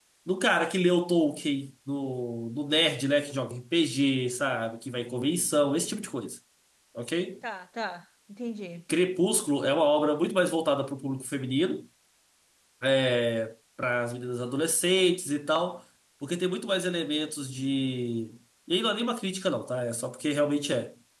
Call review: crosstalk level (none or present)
none